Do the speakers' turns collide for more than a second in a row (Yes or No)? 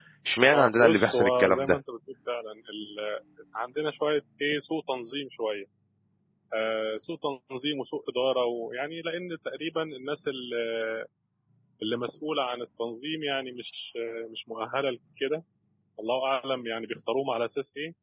Yes